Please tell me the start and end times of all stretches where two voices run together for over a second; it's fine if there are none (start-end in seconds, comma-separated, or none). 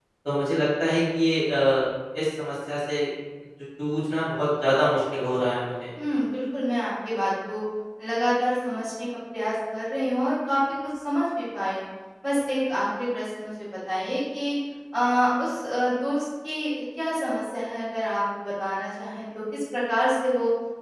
none